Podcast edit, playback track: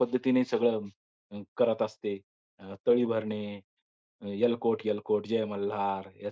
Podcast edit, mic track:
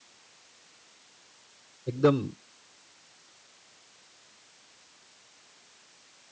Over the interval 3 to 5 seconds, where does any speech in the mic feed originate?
neither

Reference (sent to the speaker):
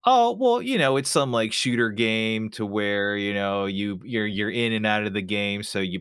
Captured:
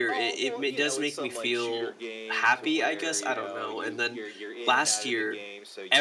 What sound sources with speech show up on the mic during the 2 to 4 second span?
both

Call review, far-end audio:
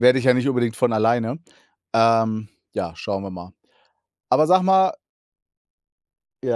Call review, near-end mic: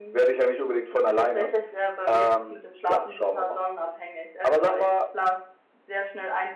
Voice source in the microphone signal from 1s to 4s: both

